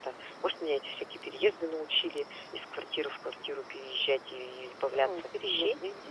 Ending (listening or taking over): taking over